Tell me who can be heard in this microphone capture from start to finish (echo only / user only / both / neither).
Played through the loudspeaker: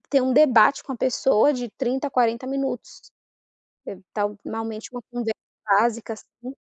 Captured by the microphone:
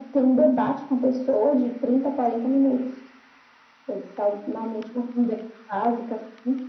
echo only